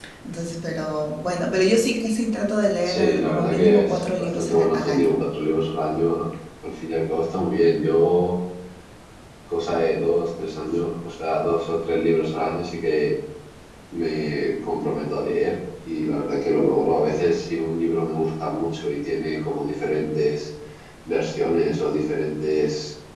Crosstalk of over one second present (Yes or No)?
Yes